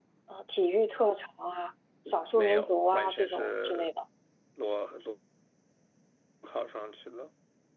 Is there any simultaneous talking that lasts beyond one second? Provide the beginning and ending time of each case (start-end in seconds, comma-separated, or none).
2.4-3.9